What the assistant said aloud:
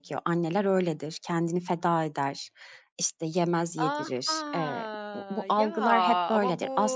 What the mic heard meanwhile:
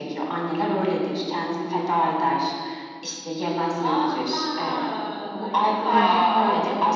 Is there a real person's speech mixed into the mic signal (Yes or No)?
Yes